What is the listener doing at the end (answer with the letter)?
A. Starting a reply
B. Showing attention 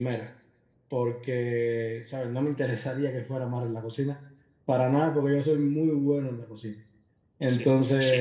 B